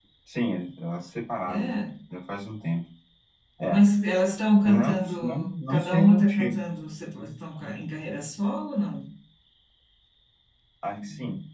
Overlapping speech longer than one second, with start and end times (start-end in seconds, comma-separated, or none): 4.6-6.5